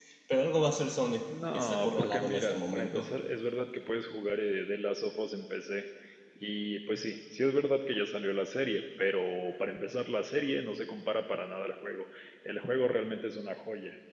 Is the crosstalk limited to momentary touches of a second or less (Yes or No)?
No